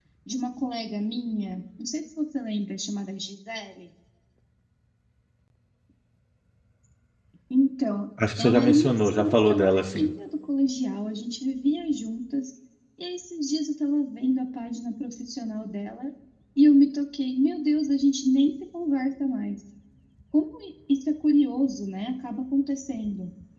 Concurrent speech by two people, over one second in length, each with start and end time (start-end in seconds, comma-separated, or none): 8.4-10.1